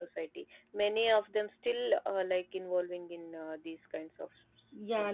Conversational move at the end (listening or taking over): taking over